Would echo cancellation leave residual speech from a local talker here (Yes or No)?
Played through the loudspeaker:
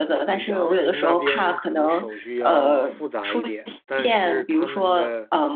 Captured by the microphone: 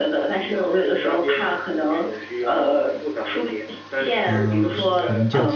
Yes